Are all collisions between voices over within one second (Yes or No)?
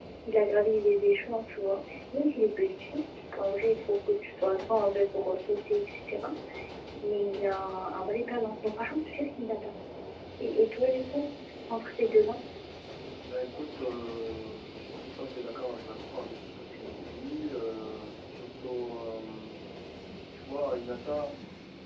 Yes